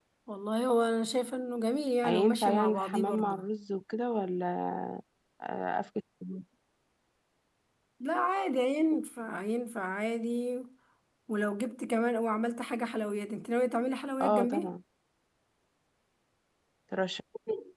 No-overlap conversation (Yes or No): No